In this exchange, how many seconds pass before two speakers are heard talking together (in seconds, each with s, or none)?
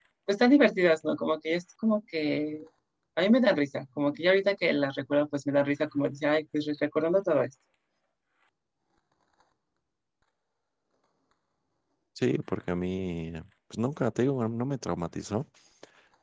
none